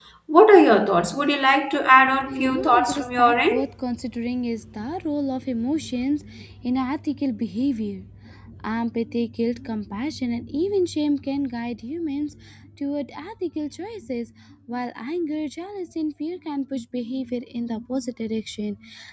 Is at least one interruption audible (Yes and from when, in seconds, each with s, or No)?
Yes, from 2.2 s